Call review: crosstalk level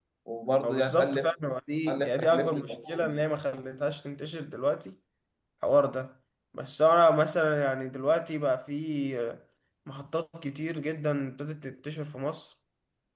present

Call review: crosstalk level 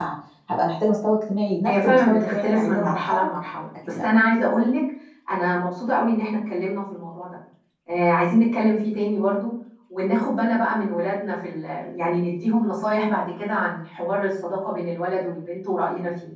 present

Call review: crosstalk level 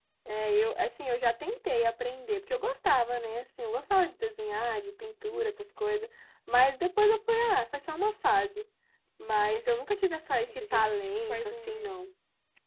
present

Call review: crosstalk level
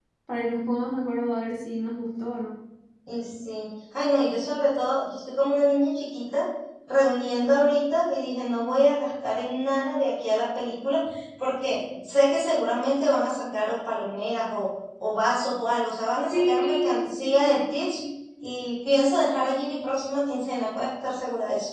present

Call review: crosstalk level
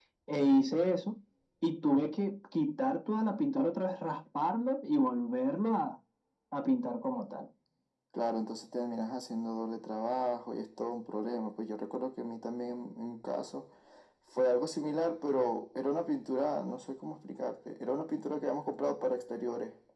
none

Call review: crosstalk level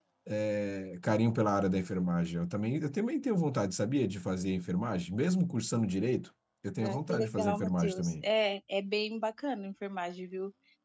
present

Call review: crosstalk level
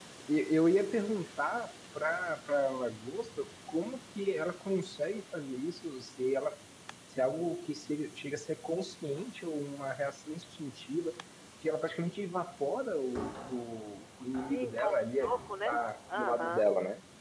present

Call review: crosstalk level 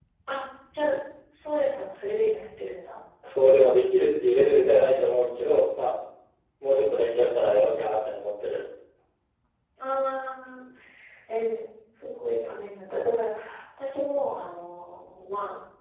none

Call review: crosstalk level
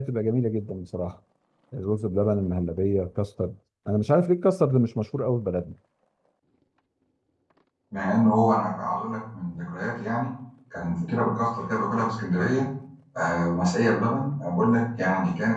none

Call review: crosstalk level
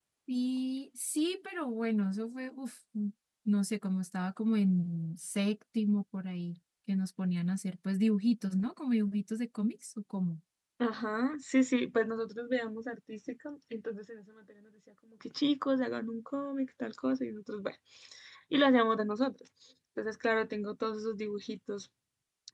none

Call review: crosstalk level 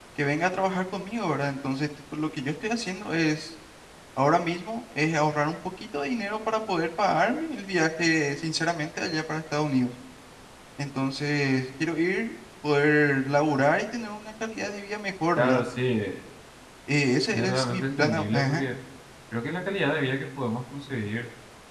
present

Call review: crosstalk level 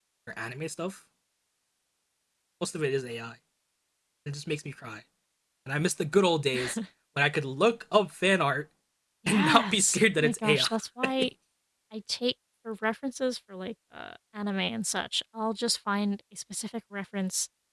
present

